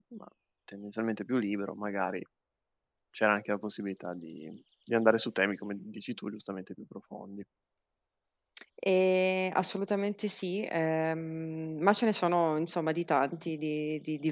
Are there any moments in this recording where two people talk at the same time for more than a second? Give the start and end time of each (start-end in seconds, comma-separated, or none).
none